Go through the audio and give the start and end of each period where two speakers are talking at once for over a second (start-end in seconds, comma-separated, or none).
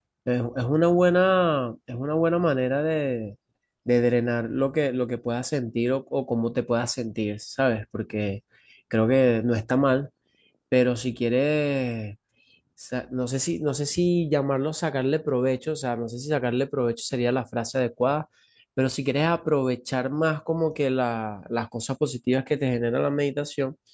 none